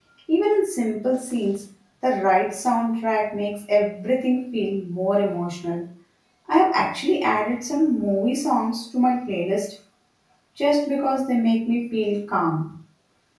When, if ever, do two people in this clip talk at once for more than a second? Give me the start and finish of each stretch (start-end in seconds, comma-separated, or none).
none